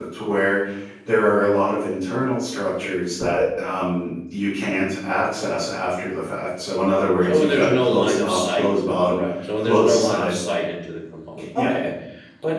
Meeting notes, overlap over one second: present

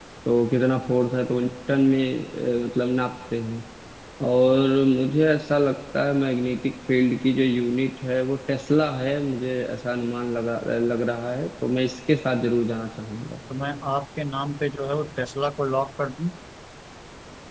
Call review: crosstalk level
none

